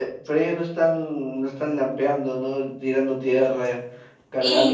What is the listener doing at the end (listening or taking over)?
taking over